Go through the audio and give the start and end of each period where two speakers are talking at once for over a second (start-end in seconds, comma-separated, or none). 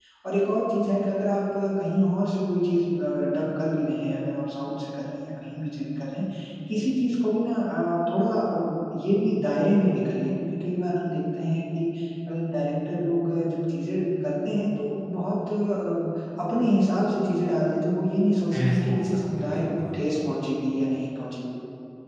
18.5-20.1